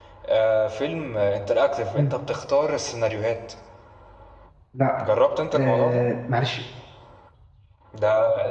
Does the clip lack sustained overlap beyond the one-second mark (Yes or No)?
Yes